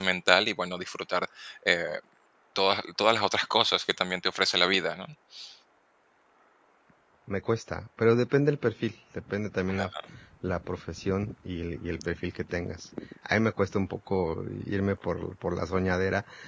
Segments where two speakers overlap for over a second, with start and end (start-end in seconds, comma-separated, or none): none